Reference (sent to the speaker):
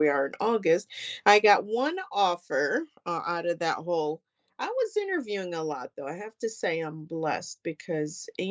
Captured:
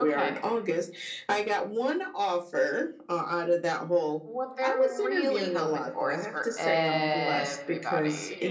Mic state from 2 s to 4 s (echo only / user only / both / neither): echo only